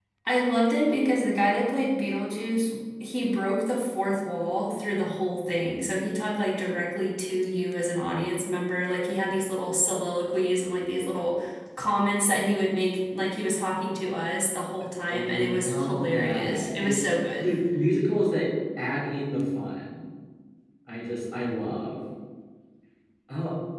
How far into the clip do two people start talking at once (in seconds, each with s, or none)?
15.1 s